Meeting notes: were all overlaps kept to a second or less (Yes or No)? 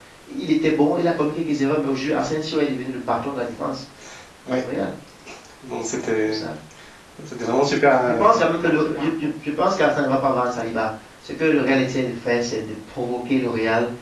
Yes